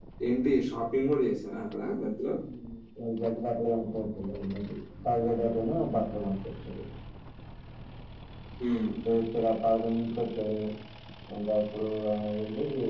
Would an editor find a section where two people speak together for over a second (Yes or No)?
No